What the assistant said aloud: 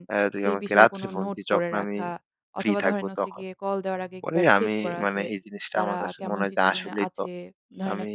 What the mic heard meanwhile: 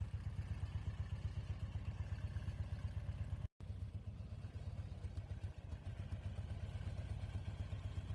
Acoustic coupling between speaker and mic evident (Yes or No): No